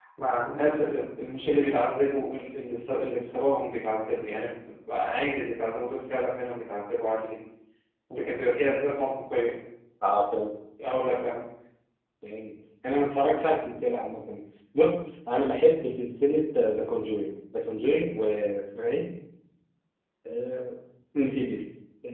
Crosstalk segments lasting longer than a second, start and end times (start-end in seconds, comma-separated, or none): none